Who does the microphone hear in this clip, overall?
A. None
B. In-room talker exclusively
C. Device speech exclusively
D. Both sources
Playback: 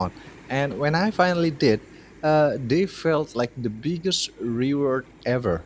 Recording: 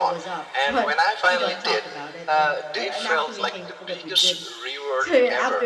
D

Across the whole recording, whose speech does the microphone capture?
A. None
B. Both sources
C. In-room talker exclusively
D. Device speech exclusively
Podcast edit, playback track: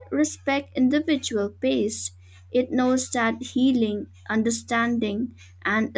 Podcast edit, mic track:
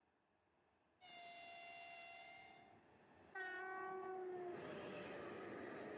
A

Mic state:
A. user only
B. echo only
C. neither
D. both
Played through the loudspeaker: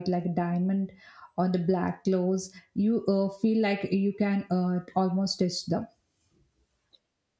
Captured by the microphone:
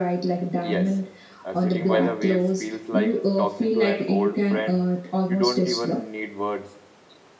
D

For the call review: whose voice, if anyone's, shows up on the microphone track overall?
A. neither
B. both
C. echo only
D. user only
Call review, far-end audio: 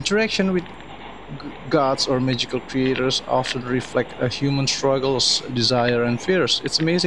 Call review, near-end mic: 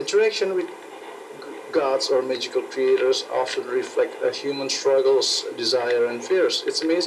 C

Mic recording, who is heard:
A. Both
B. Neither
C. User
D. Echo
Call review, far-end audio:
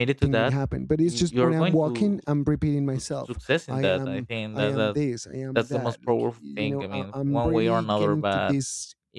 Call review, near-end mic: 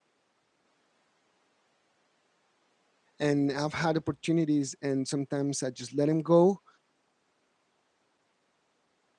C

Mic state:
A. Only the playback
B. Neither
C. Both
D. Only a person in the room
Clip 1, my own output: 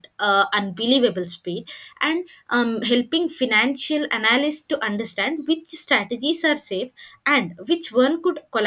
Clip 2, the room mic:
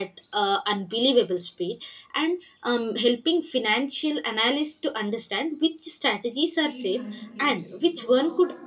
C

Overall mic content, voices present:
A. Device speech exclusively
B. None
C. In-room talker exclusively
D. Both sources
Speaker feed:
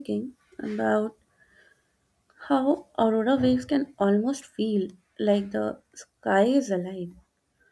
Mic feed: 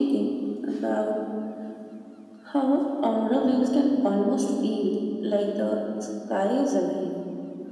A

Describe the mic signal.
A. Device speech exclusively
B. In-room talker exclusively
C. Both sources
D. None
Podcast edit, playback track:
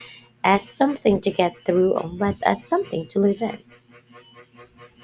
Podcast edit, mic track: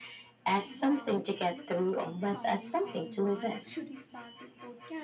C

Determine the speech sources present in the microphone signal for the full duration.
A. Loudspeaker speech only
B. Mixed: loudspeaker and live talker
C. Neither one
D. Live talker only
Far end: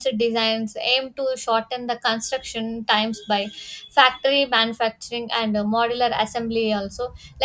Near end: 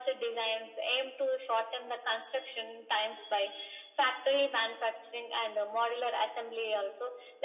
A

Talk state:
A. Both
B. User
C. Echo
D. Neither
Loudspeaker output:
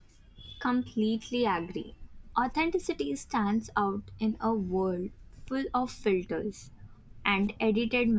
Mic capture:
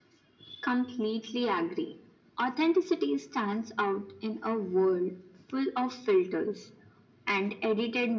C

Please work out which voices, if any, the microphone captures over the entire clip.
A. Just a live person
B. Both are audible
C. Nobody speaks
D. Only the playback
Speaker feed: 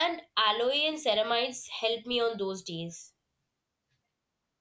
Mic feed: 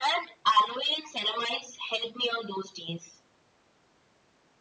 D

